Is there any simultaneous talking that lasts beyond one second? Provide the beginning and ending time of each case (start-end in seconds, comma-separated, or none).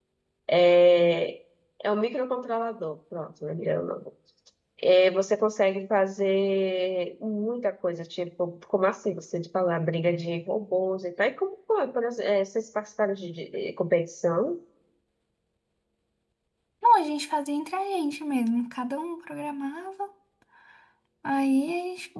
none